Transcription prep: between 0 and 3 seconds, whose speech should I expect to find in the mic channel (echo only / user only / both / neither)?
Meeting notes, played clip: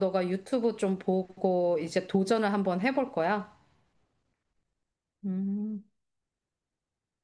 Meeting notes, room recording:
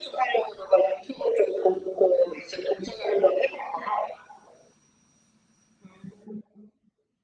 echo only